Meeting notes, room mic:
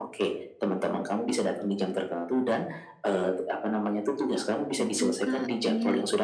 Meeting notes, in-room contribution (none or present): present